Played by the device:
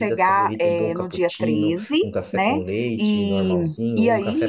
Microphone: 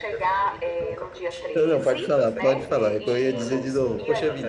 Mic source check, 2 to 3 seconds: both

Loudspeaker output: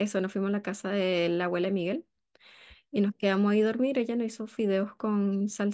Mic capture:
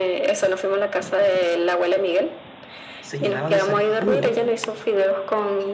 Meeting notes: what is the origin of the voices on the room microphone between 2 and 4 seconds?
both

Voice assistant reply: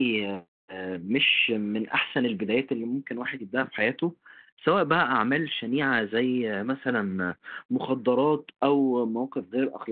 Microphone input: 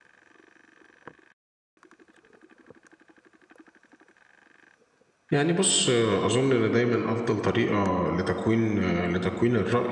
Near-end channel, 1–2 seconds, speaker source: neither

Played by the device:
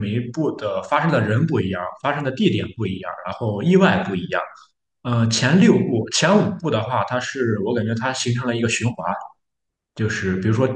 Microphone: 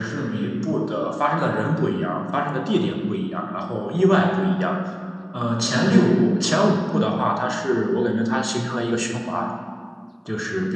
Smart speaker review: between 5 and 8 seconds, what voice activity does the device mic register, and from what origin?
echo only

